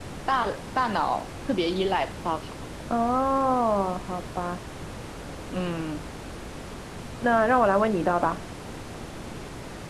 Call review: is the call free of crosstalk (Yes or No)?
Yes